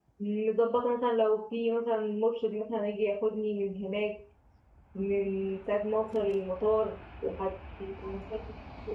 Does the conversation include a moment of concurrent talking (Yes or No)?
No